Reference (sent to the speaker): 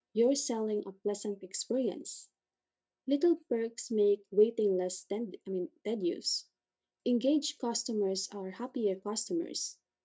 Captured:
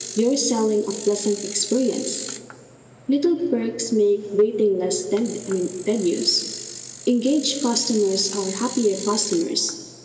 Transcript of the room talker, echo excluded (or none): none